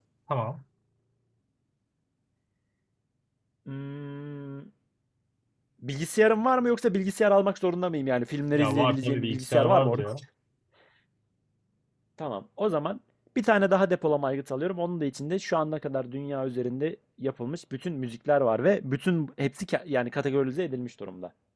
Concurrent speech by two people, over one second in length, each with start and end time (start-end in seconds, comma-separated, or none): 8.5-10.1